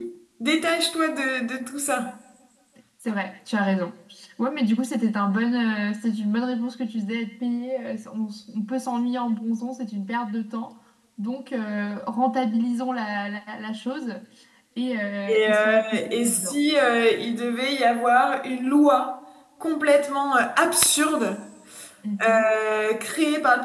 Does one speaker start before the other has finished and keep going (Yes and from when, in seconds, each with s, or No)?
Yes, from 15.3 s